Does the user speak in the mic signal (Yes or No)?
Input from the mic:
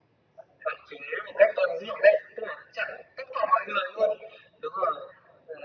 No